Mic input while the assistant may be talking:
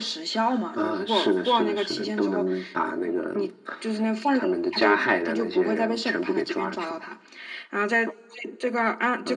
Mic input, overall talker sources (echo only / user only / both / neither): echo only